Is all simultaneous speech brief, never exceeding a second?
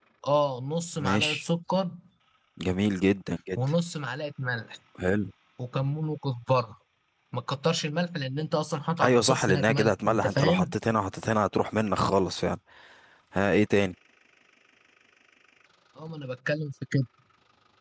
No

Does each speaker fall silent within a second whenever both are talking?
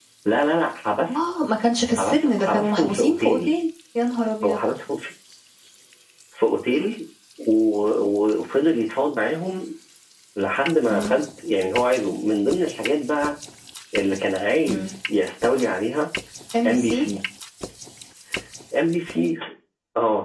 No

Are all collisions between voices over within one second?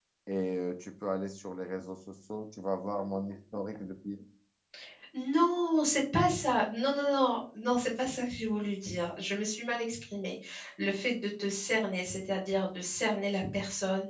Yes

